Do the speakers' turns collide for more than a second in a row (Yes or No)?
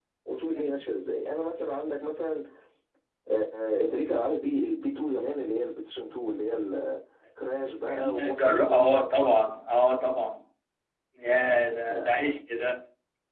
Yes